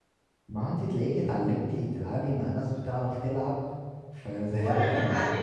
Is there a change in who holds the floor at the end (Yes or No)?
Yes